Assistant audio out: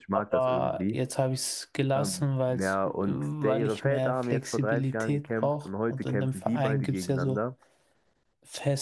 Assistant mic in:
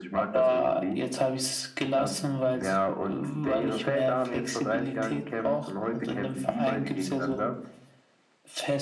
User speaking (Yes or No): No